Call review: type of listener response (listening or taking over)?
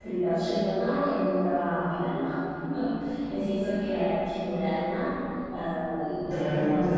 listening